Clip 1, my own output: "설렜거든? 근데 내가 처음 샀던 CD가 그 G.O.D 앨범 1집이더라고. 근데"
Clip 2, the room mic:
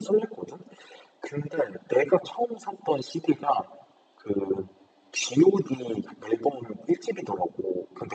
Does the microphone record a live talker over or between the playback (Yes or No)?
No